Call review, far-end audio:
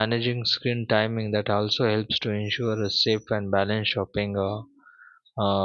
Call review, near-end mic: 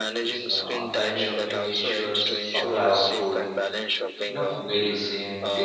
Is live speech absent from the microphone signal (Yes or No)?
No